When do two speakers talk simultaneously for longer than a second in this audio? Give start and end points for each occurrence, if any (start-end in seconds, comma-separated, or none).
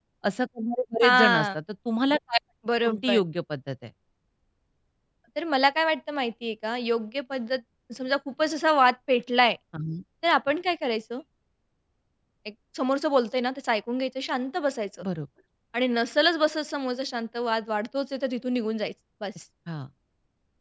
none